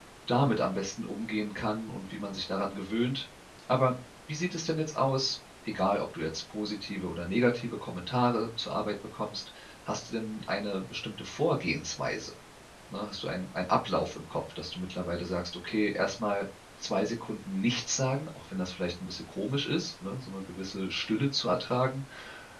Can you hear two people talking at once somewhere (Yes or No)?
No